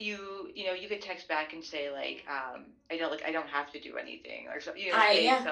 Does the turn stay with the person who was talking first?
Yes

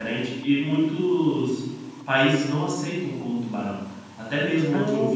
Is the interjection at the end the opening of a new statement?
No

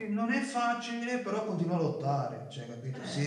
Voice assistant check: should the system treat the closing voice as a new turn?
No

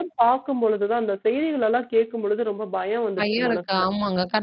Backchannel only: No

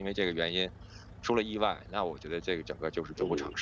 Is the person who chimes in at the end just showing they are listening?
No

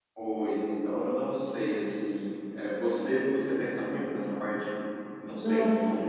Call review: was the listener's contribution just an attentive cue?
Yes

